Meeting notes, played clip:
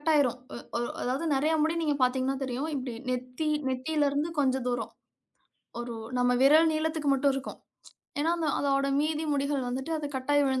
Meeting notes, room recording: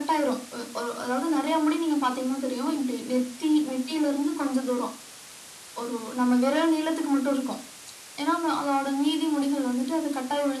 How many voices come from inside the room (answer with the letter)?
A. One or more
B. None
B